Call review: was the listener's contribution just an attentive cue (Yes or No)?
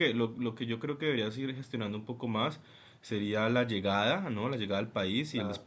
Yes